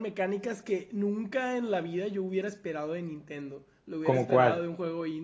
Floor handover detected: No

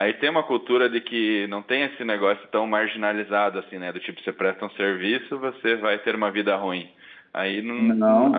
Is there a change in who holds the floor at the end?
No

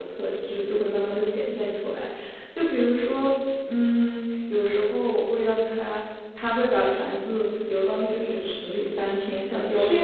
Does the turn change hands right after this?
Yes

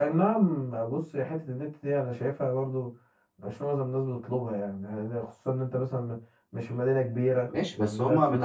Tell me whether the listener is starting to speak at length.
Yes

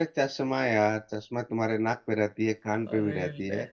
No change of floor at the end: Yes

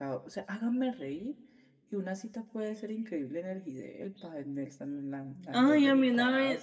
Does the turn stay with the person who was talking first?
No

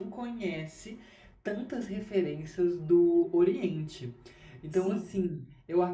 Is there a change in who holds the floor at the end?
No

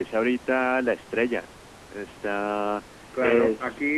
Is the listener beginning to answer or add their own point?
Yes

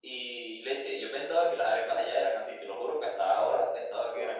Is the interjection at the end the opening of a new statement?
Yes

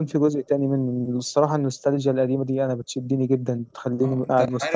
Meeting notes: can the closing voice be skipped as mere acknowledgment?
No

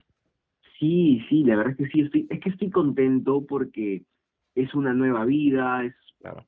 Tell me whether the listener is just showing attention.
Yes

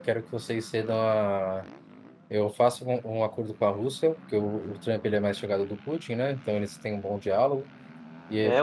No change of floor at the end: No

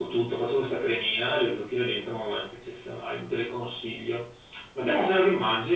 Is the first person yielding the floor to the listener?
No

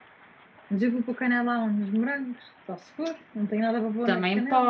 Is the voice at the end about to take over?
Yes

